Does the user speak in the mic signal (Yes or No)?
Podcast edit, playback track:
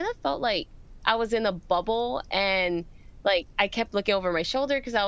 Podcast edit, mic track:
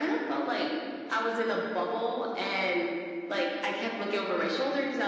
No